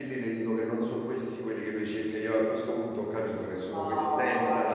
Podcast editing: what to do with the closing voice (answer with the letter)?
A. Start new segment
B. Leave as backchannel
A